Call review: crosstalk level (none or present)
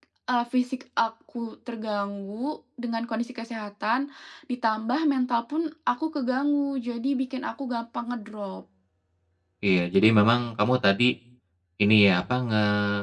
none